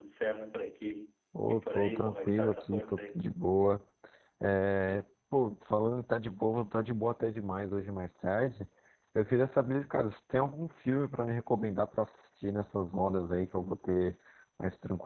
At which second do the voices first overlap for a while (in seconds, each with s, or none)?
1.3 s